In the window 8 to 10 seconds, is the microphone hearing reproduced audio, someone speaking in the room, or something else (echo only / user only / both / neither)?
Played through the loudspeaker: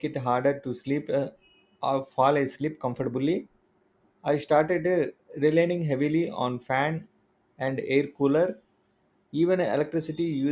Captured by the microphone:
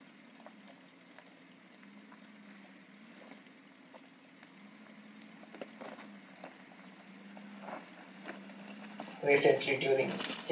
user only